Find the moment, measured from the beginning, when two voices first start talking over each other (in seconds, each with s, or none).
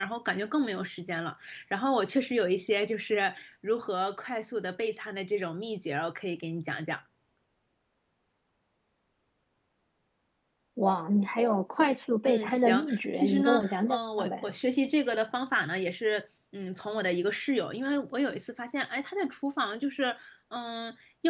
12.2 s